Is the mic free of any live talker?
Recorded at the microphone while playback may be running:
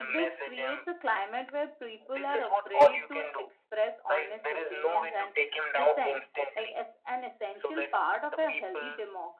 No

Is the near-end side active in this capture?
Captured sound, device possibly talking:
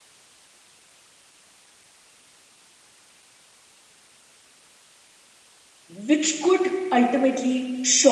Yes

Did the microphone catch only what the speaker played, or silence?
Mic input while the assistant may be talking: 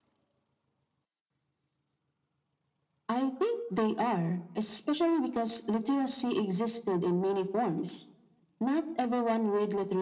Yes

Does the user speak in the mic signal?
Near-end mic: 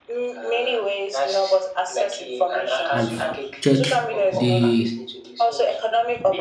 Yes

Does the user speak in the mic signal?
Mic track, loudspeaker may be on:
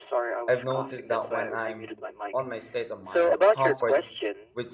Yes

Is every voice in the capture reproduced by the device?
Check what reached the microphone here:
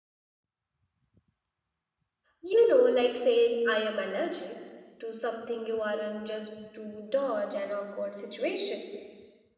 No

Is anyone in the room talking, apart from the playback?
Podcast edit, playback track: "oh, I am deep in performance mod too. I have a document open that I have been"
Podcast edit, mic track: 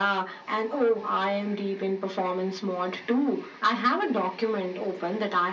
No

